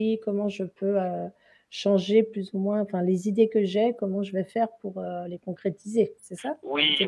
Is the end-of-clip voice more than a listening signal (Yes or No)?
Yes